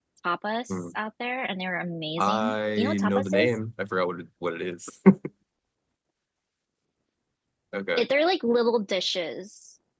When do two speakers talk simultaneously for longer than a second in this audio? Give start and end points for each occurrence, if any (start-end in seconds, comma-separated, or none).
2.2-3.5